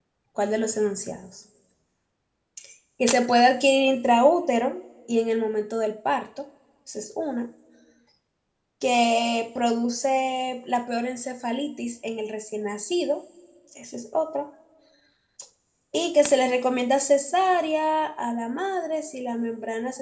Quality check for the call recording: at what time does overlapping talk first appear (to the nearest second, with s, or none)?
none